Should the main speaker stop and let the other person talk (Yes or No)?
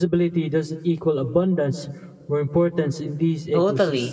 Yes